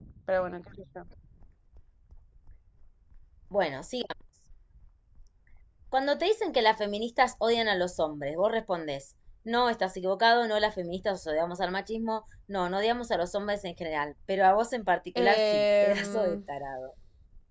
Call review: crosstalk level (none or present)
present